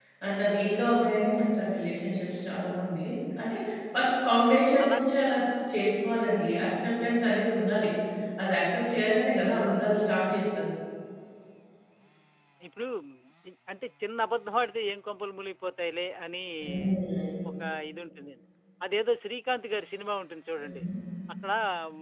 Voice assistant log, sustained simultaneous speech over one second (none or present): none